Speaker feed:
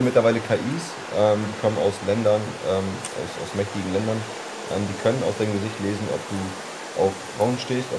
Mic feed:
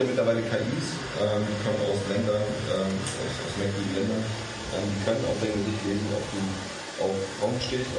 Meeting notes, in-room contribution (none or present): none